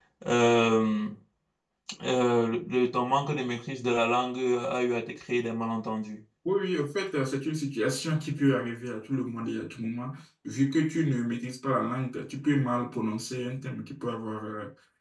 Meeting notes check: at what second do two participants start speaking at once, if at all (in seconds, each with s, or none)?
none